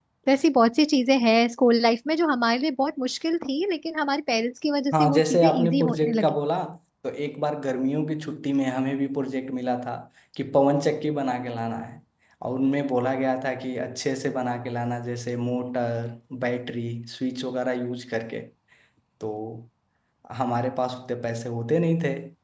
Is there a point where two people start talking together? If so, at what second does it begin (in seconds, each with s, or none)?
4.9 s